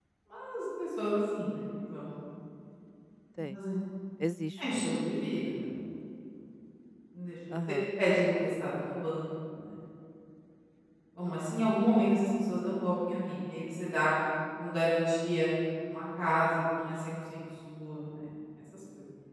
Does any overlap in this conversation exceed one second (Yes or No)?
No